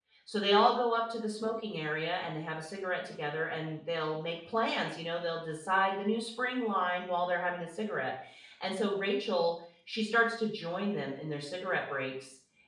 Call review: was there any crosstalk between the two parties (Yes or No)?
No